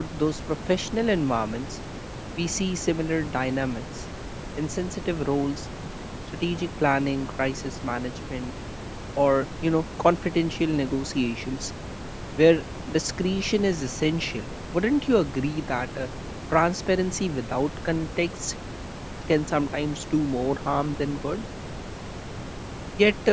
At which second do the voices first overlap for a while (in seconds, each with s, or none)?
none